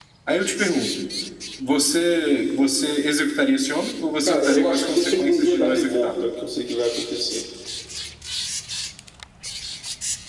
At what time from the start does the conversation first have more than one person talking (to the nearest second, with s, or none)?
4 s